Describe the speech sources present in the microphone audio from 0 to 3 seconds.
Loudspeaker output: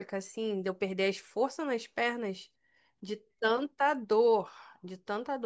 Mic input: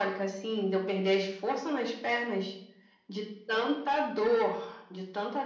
echo only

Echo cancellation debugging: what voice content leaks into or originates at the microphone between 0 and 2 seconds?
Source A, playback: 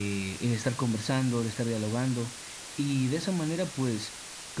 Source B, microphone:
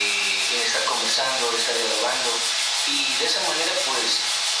echo only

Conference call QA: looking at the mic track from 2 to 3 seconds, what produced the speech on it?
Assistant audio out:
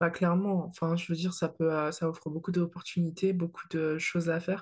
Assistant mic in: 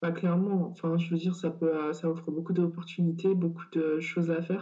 echo only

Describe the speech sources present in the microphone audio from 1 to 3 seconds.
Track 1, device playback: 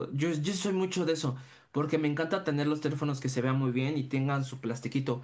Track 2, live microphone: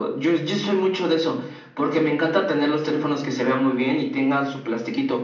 echo only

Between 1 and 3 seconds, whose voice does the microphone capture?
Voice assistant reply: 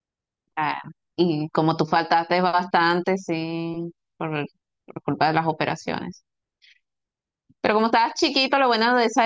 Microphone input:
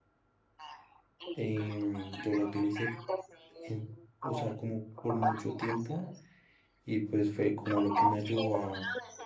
both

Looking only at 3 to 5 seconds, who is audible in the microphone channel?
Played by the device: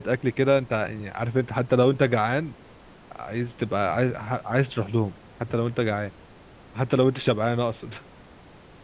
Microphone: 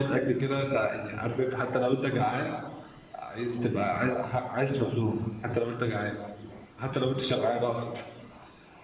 echo only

